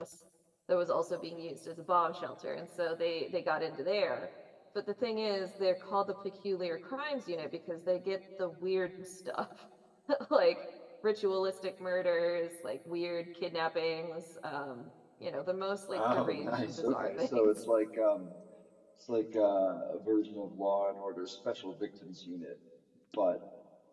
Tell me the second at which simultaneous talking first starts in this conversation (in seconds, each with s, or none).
15.9 s